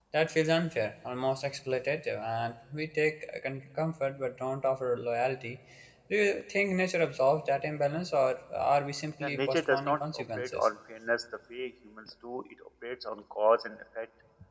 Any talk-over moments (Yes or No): Yes